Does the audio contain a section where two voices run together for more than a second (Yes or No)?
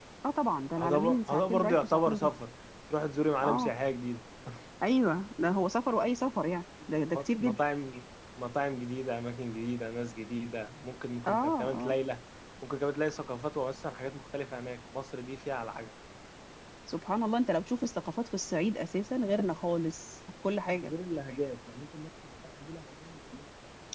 Yes